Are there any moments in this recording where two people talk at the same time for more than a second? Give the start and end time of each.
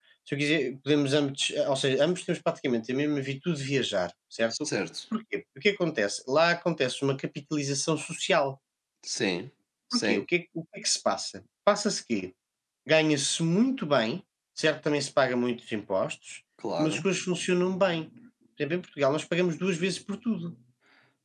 none

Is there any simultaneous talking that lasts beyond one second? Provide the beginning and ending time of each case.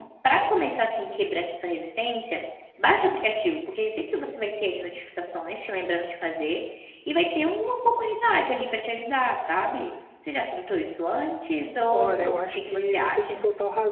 11.9-13.4

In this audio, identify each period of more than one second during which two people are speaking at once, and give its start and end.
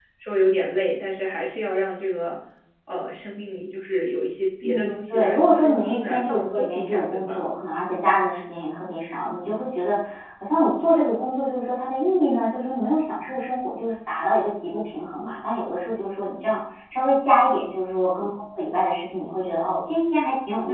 4.6-7.5

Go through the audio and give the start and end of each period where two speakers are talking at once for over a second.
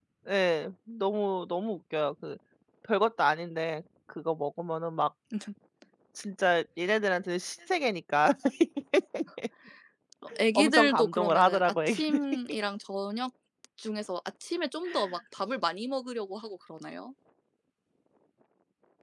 10.6-12.2

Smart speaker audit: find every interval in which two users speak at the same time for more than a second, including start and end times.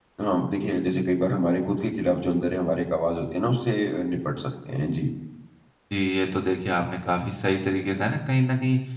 none

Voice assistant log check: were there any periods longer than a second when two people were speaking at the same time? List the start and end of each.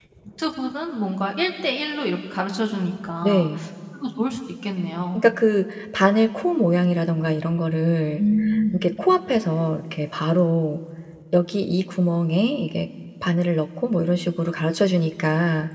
none

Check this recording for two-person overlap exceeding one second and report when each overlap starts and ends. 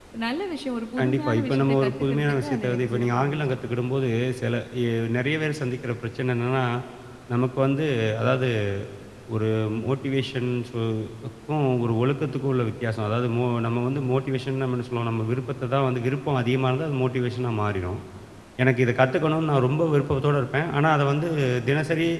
1.0-3.6

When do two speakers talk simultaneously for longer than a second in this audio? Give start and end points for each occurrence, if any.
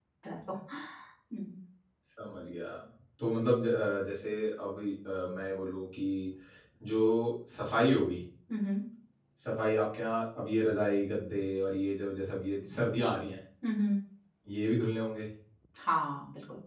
none

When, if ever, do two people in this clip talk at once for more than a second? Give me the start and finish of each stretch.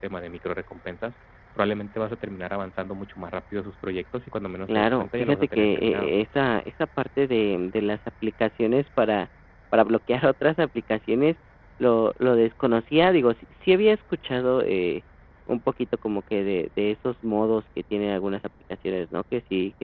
4.7-6.1

